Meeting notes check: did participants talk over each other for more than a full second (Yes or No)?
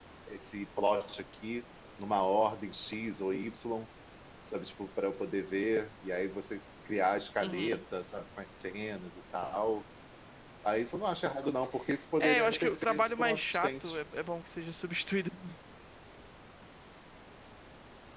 Yes